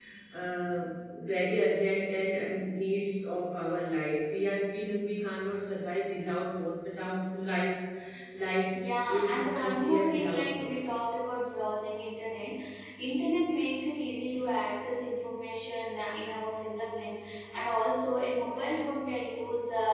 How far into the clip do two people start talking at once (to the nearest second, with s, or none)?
9 s